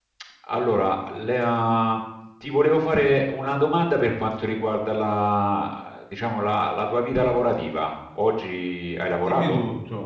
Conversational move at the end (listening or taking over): taking over